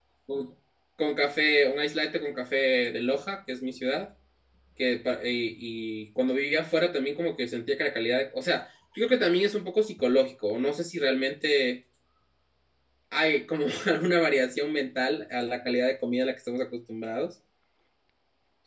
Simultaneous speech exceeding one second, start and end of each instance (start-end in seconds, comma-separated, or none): none